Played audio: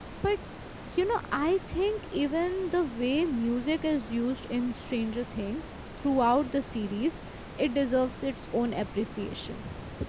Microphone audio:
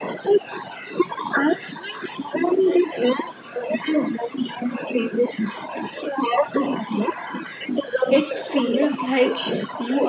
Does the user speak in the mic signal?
Yes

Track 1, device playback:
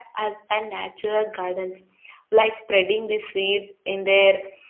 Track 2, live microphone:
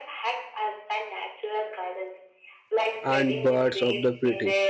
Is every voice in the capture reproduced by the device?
No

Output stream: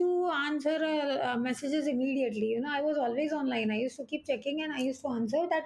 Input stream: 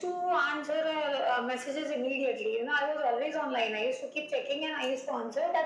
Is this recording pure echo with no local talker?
Yes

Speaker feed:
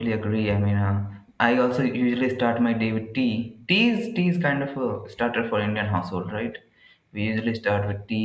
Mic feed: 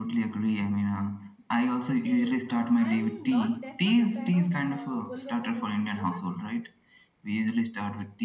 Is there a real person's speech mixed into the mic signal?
Yes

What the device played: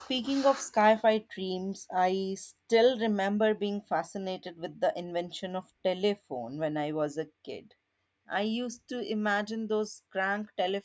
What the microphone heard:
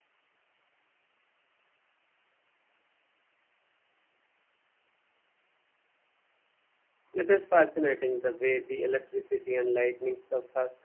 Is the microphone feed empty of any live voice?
No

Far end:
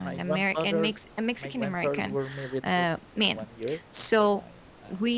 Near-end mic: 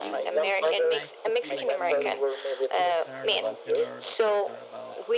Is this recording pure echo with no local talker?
No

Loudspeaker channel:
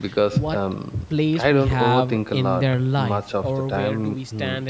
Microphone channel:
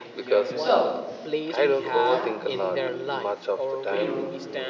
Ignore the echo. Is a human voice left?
Yes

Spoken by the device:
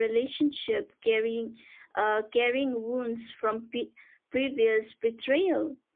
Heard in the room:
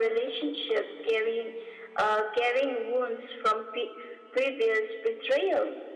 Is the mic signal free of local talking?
Yes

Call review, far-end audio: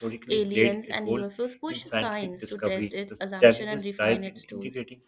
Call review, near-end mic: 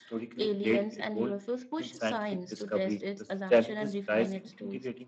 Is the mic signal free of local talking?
Yes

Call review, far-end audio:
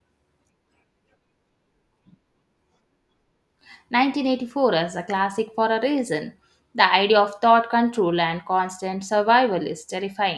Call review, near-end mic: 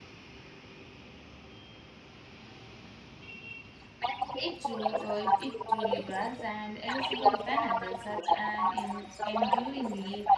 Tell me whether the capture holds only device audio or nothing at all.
No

